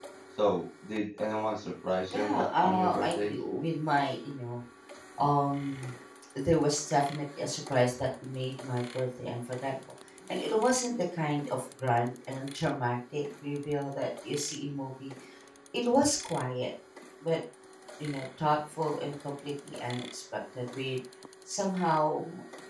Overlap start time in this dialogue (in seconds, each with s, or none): 2.1 s